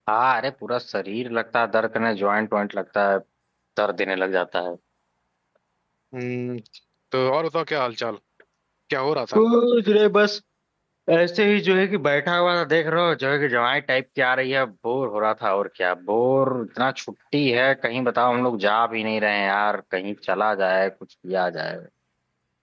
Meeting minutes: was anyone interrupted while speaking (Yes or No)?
No